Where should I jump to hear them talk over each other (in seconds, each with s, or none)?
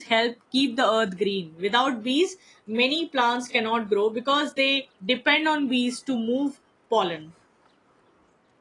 none